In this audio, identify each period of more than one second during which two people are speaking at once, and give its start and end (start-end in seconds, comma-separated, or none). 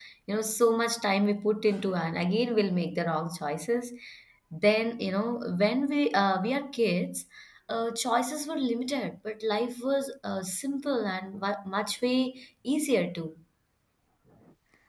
none